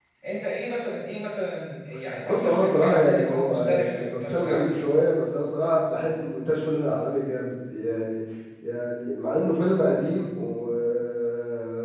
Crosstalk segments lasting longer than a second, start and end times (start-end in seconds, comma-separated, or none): 2.3-4.7